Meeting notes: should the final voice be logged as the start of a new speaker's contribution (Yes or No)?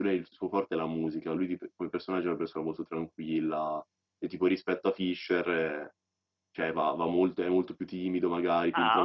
Yes